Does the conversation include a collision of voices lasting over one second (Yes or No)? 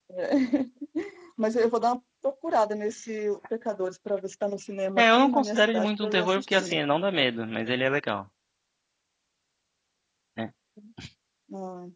Yes